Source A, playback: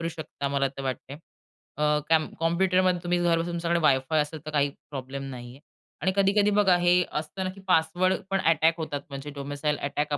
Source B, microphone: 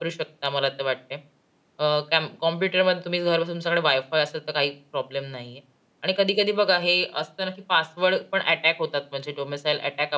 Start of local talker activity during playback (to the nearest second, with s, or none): none